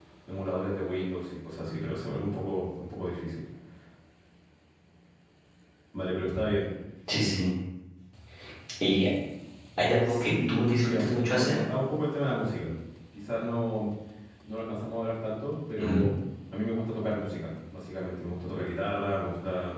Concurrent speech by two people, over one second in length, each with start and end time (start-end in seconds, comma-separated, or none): 10.1-11.6